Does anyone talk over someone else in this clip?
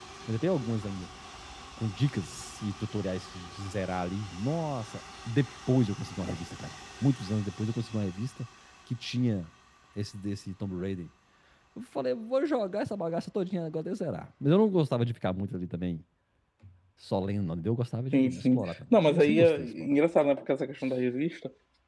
Yes, from 18.1 s

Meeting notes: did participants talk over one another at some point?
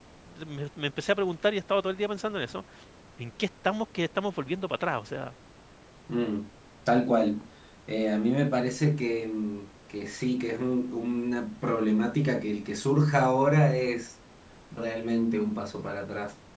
No

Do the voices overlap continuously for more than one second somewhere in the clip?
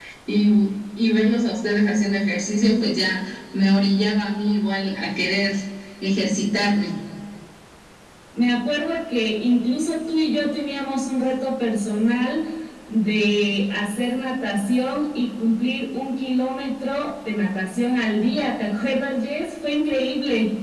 No

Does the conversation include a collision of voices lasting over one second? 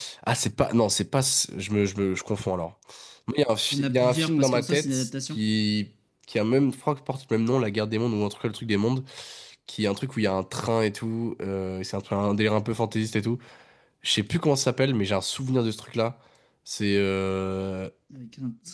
Yes, from 3.7 s

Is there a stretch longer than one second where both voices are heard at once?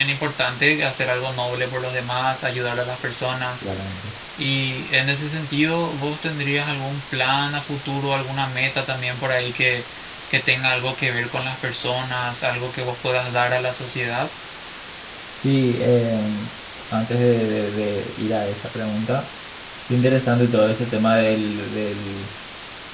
No

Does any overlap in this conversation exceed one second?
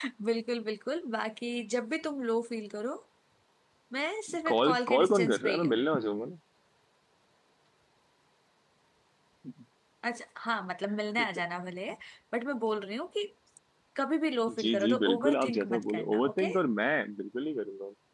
Yes, from 4.5 s

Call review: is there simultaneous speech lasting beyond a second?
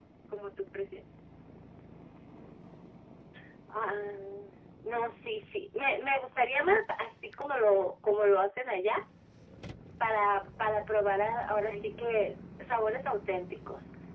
No

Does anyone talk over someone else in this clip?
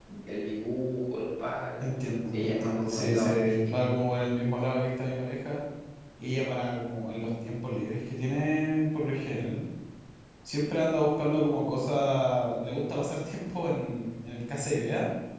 Yes, from 2.4 s

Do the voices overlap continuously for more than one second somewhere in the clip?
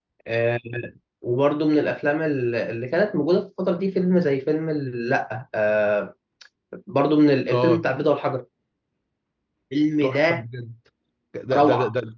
No

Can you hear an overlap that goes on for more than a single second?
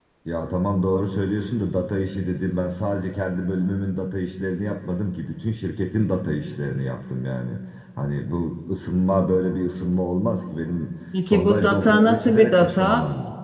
Yes, from 11.1 s

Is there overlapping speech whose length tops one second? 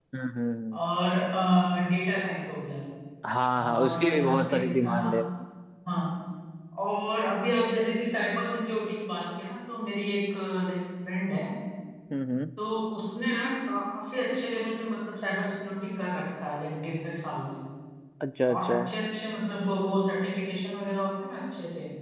Yes, from 3.6 s

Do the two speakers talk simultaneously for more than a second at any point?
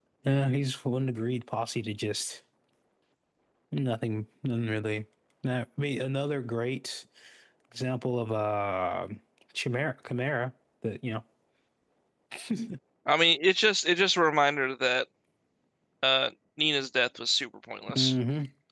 No

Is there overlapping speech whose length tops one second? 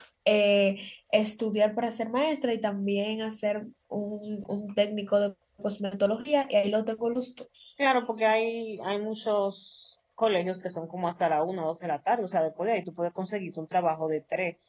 No

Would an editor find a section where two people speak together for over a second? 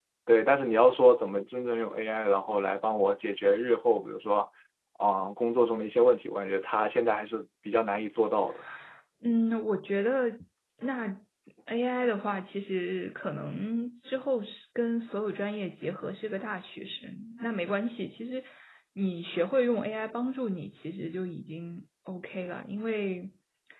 No

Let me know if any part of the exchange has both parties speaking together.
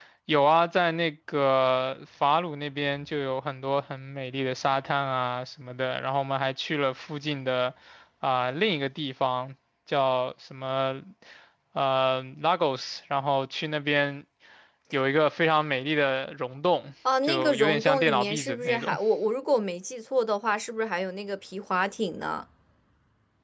Yes, from 17.0 s

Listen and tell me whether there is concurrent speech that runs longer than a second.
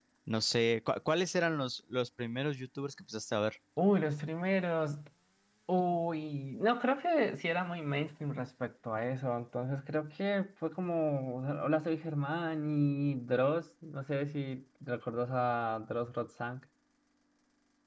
No

